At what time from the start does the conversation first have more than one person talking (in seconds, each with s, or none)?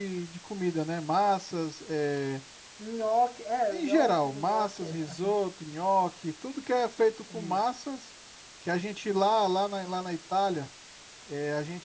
3.7 s